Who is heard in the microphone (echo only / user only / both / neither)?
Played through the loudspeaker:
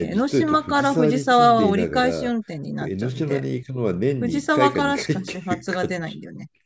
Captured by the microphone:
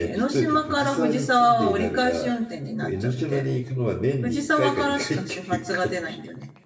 echo only